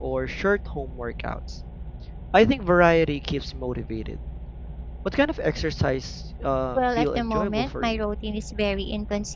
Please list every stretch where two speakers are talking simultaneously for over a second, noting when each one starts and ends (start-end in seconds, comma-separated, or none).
6.8-8.0